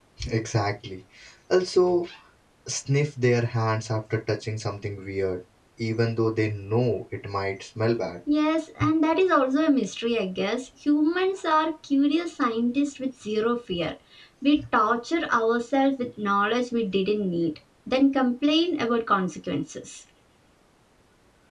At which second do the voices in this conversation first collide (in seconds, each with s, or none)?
none